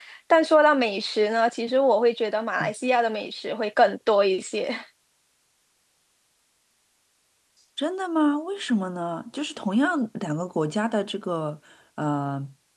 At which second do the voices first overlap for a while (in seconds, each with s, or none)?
none